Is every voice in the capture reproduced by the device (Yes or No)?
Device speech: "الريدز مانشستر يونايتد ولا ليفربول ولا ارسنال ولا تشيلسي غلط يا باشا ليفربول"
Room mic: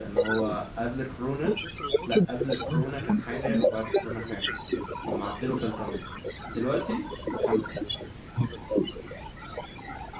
No